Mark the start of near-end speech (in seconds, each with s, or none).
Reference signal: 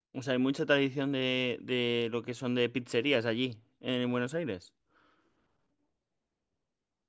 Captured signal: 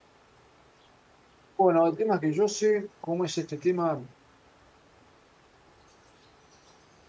1.6 s